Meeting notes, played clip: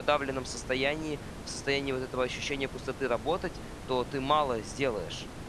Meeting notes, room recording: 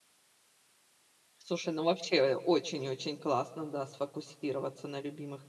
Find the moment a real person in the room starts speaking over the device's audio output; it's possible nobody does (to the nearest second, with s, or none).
1 s